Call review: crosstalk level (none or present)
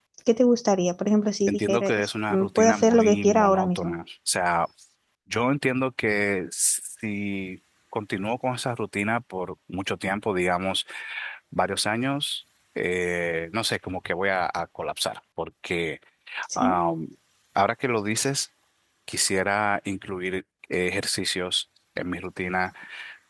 present